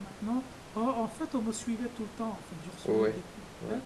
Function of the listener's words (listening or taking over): listening